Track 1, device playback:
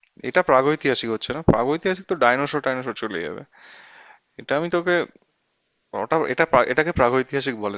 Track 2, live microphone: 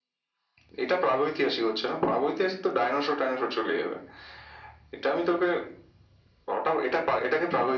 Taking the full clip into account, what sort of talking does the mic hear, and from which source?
echo only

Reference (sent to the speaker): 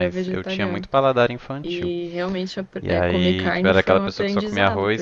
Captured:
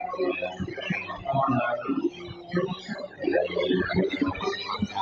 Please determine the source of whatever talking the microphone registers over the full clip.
echo only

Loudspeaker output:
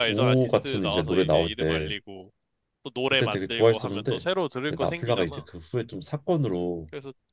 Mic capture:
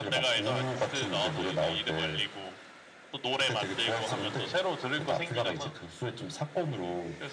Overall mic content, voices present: echo only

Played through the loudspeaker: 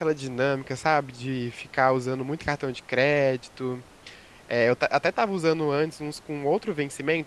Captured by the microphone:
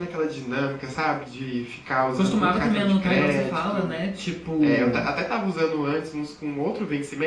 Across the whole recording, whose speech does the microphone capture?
both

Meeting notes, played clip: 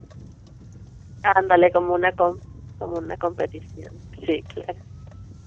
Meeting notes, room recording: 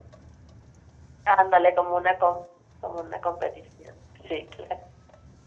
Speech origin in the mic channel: echo only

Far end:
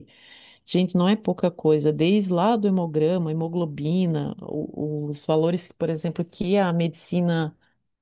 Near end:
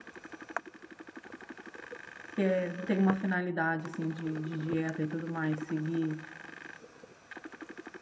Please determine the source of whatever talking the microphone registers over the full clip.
user only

